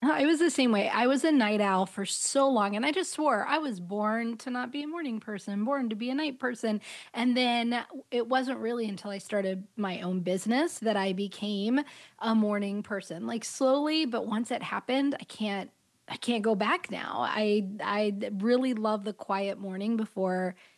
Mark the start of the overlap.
none

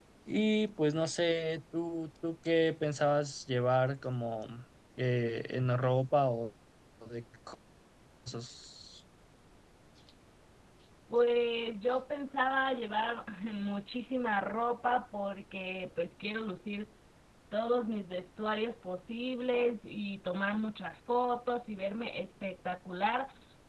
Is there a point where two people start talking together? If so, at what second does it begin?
none

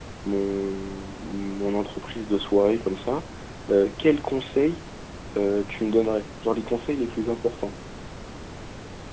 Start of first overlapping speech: none

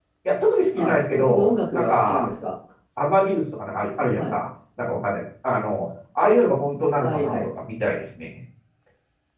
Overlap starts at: 0.8 s

